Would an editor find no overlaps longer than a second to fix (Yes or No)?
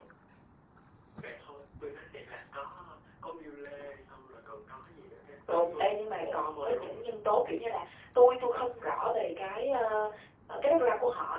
No